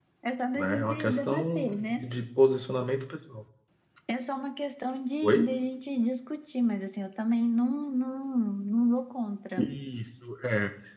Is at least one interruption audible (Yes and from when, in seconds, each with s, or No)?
Yes, from 0.6 s